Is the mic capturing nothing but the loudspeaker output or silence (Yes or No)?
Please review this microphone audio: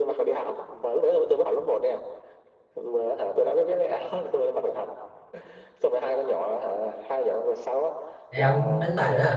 No